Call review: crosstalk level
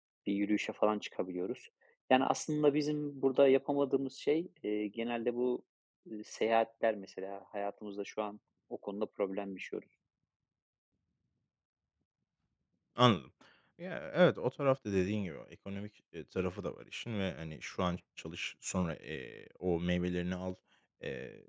none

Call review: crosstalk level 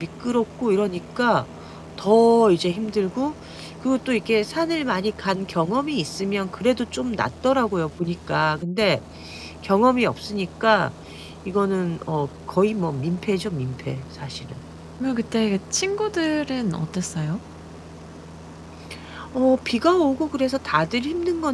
none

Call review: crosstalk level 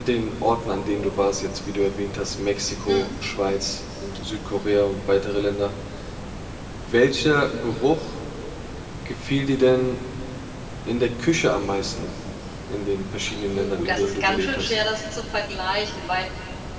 present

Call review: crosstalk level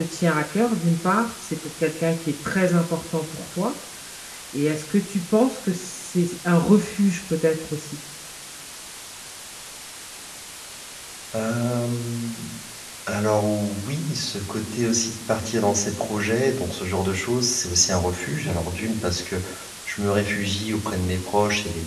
none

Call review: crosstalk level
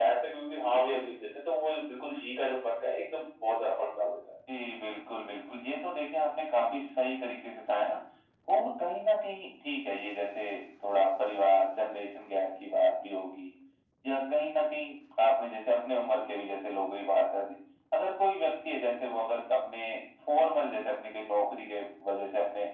none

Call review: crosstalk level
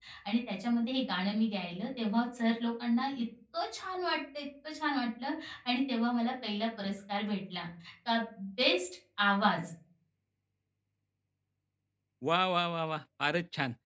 none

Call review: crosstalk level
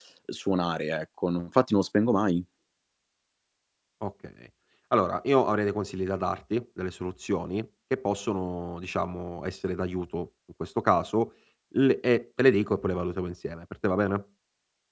none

